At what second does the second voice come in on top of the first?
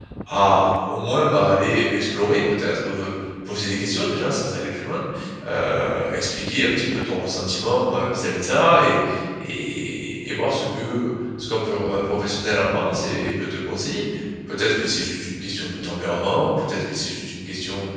none

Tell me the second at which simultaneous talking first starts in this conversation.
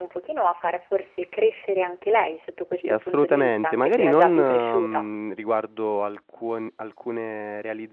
2.7 s

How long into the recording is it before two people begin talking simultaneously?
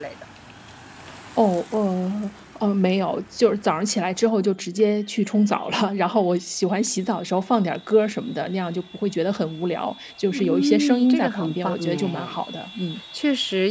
10.3 s

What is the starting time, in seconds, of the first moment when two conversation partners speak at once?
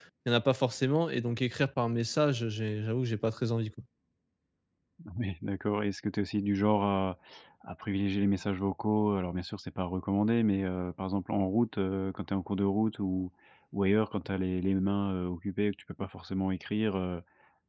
none

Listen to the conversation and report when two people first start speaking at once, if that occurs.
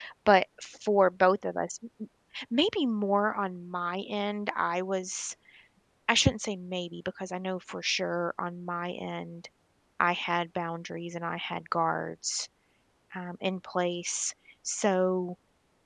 none

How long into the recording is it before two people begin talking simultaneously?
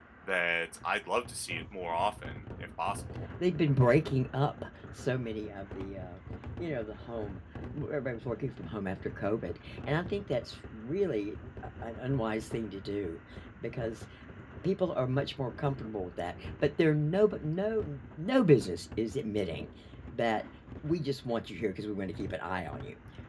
none

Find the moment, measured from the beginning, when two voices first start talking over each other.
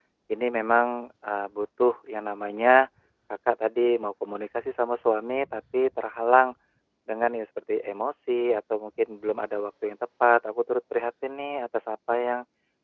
none

